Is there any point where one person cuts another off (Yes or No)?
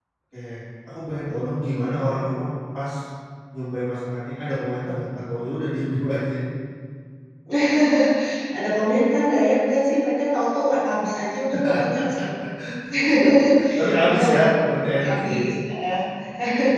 Yes